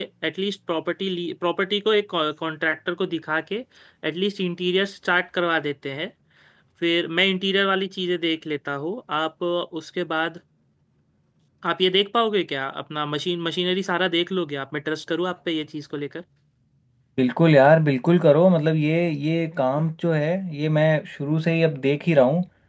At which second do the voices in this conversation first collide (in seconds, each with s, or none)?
none